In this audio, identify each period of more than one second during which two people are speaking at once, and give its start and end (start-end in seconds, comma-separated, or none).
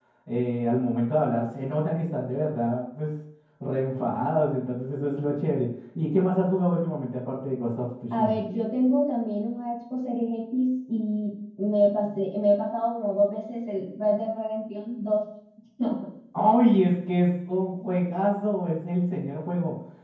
none